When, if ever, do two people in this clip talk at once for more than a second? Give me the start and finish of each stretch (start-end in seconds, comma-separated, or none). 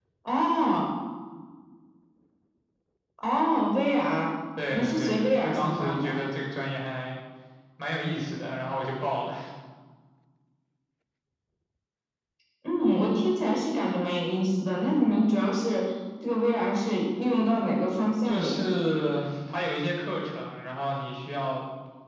4.7-6.2